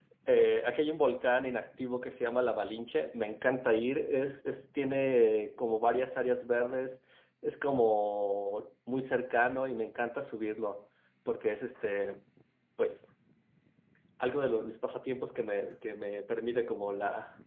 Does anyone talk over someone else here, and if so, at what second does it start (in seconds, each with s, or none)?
none